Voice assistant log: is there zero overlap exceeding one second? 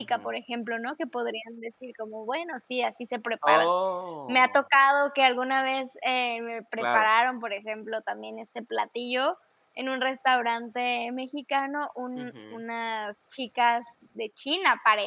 Yes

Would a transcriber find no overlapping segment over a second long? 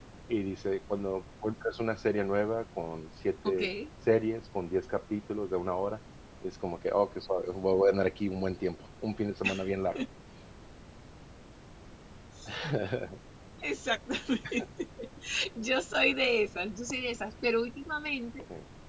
Yes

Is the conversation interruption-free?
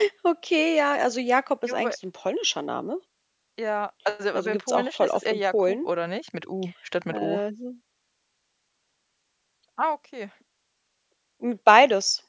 No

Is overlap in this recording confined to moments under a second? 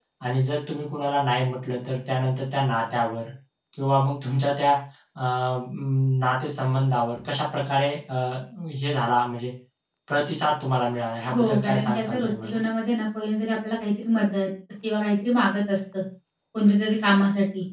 No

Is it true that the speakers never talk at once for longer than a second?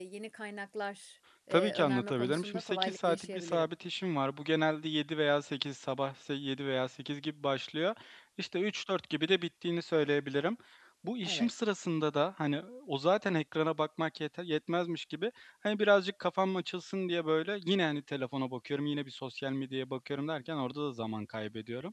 No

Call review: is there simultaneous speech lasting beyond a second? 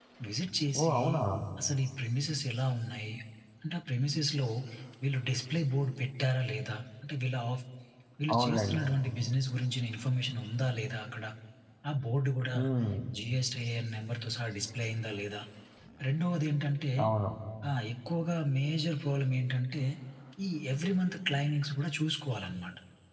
No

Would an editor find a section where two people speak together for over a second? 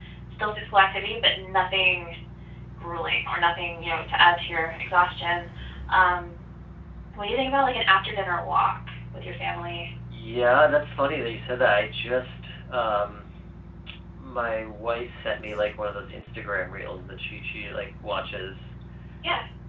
No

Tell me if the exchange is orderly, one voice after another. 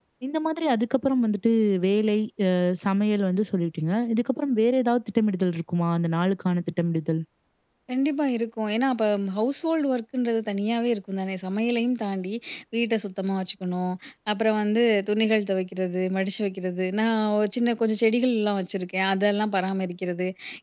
Yes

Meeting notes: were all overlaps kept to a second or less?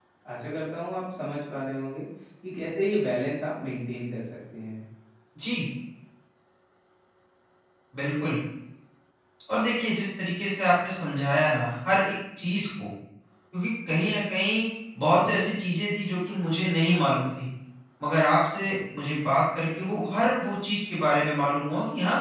Yes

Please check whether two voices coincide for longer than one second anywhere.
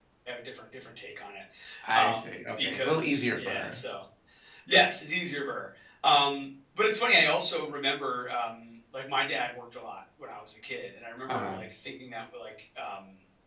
Yes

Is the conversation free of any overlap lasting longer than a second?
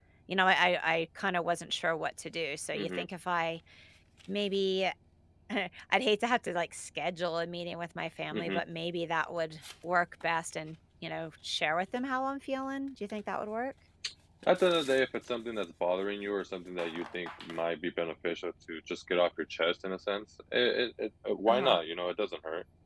Yes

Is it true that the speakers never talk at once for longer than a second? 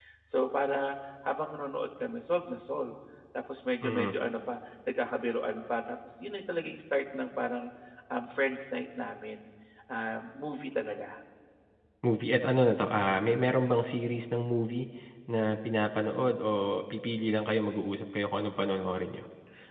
Yes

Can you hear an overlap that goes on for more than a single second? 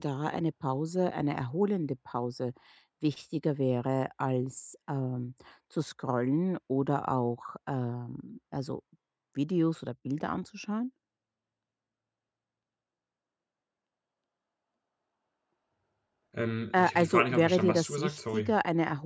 Yes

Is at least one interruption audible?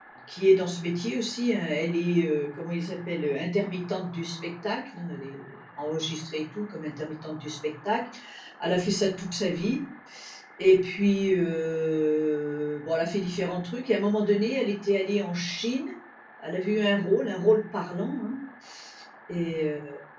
No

